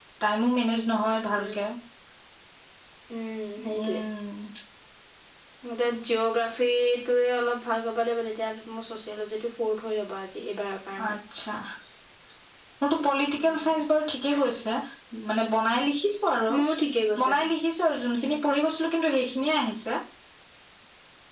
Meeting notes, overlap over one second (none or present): none